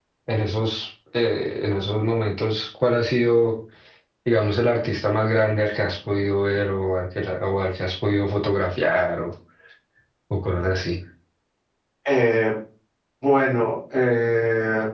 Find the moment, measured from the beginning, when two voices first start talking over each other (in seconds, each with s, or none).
none